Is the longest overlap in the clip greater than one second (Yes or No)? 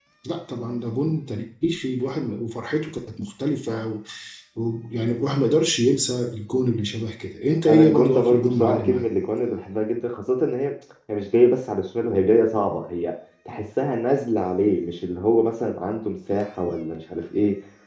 Yes